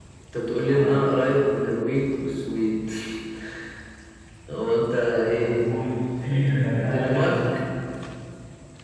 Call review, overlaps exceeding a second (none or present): present